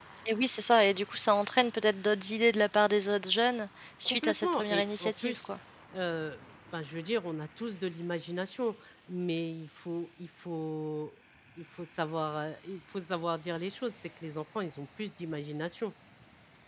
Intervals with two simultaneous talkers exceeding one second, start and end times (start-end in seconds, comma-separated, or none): 4.0-5.5